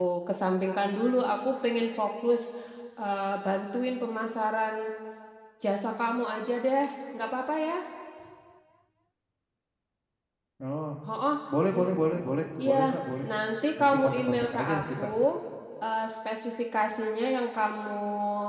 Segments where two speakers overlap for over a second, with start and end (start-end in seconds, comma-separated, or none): 13.8-15.0